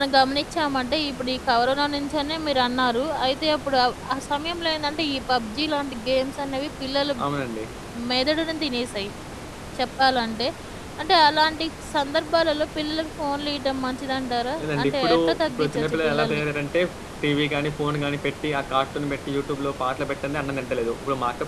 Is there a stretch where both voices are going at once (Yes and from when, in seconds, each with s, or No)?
Yes, from 14.6 s